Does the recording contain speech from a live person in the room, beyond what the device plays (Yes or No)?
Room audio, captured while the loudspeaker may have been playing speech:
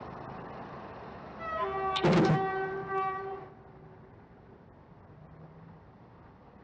Yes